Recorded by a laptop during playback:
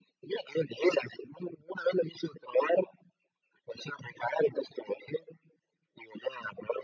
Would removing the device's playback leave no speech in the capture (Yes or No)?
Yes